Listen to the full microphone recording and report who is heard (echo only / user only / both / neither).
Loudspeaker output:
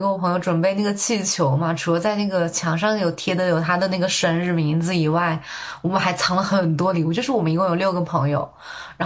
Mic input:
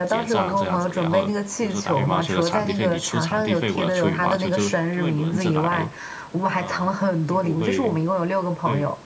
both